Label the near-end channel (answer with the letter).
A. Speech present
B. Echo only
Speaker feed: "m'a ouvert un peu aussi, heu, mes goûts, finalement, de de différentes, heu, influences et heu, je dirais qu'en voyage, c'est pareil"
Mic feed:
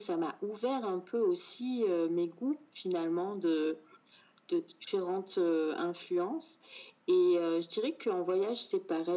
B